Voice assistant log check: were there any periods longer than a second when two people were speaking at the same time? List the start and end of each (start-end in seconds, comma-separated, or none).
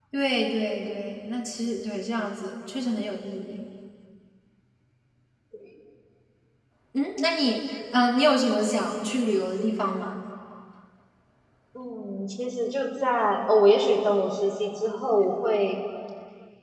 none